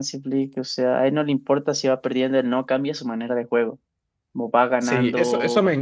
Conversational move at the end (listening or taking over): taking over